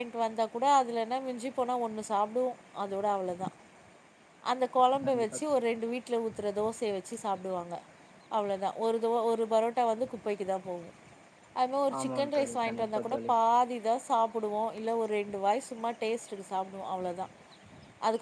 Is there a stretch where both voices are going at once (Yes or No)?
Yes